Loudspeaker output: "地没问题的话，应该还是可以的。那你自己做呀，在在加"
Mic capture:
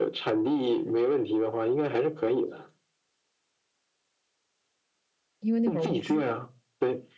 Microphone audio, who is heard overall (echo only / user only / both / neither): both